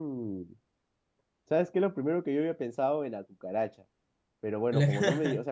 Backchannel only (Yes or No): Yes